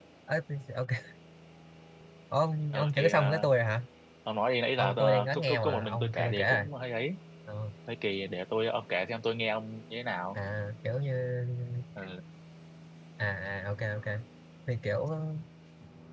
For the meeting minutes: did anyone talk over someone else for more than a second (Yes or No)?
Yes